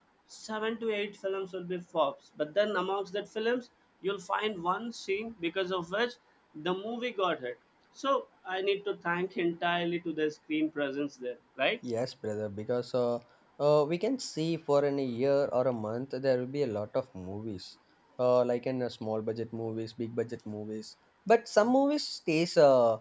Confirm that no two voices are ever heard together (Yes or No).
Yes